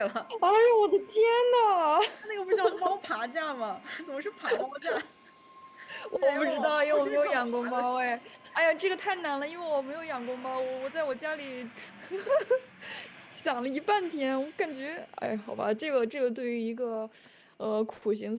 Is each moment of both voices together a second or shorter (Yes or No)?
No